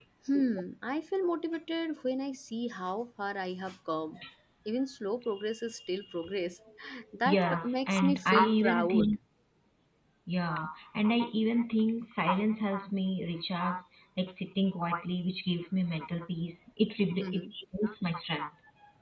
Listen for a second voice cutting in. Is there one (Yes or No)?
Yes